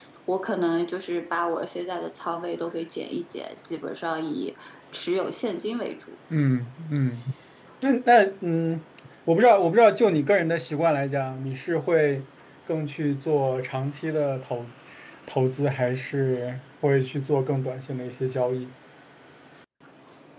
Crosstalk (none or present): none